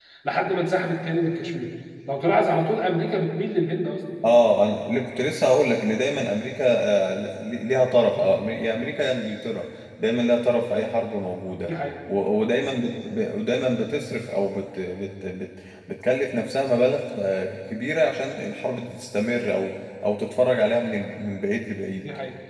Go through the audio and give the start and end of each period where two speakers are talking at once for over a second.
none

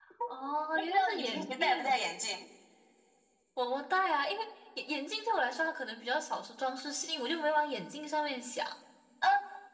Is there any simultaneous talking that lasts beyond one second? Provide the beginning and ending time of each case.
0.7-2.0

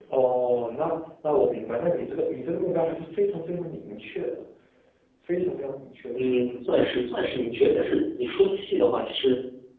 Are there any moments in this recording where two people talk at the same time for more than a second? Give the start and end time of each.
none

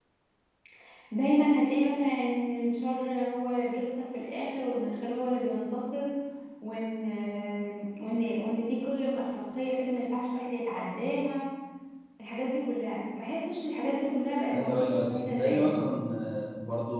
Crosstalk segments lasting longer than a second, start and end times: 14.5-15.9

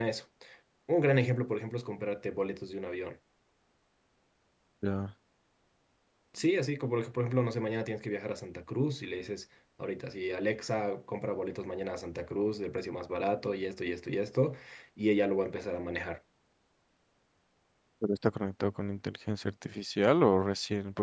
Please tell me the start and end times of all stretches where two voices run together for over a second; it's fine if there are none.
none

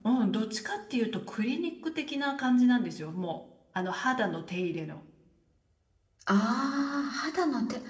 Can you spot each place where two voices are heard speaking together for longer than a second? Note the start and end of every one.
none

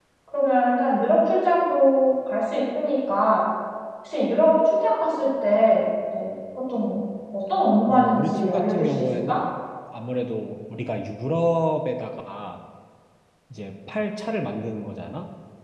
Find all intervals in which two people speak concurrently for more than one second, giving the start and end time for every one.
7.9-9.4

